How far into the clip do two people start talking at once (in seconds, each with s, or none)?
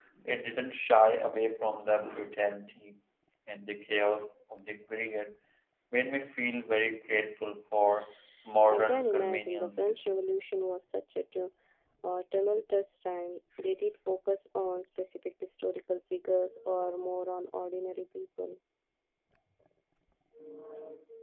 8.7 s